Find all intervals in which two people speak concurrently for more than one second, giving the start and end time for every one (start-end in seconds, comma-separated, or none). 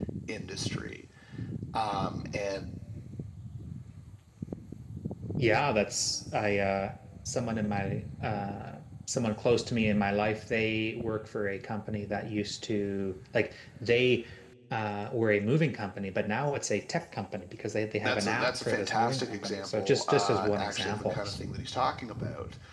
18.0-21.1